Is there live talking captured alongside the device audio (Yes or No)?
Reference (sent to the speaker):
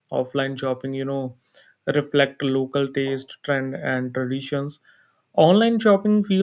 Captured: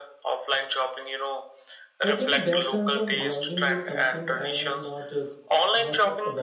Yes